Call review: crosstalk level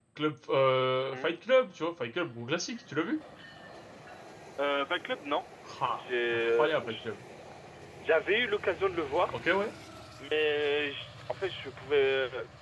present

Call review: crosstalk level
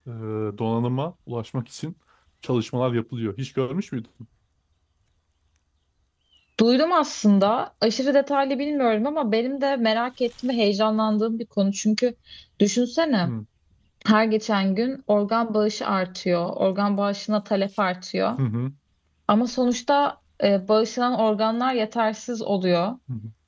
none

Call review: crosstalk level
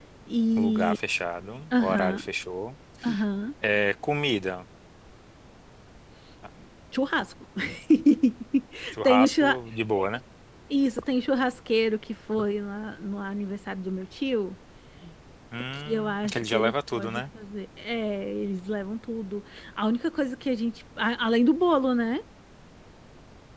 present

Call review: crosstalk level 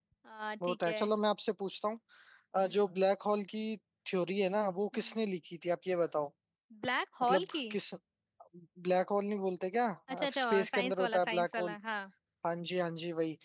present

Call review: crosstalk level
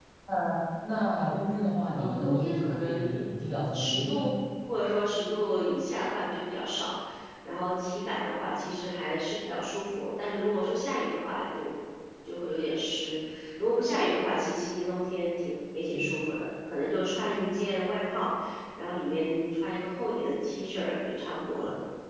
present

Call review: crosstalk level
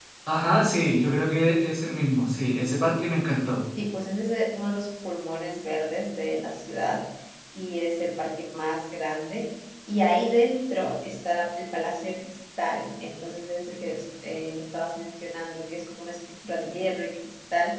none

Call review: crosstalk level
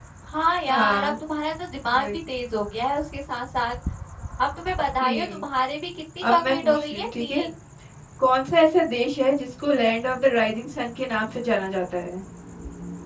present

